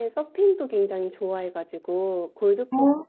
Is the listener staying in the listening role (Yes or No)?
Yes